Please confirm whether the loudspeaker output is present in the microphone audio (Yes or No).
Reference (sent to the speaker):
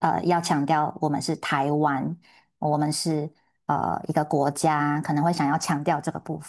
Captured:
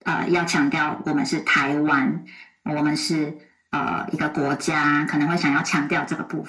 Yes